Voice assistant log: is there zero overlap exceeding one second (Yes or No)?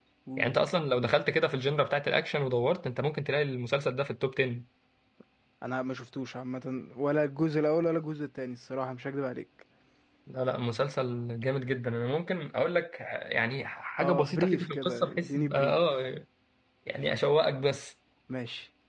No